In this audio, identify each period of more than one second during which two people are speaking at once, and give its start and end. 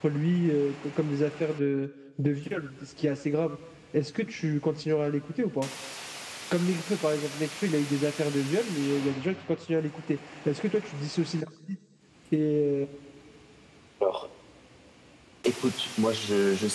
none

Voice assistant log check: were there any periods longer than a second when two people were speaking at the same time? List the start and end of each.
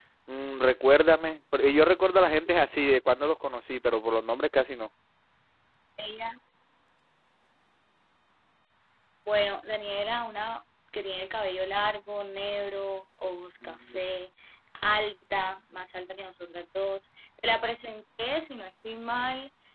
none

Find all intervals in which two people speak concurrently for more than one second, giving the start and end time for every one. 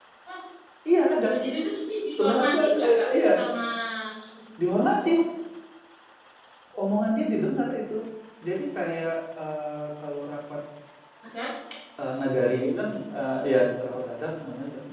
2.2-3.5

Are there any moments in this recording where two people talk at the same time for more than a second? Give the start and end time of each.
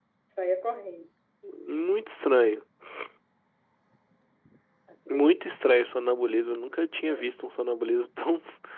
none

